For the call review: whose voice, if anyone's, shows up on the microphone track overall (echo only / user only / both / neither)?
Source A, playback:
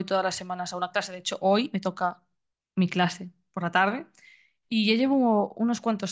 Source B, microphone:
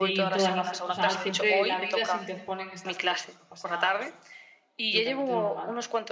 both